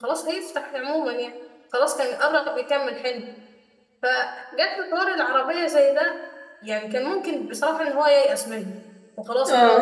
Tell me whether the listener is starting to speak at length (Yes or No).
No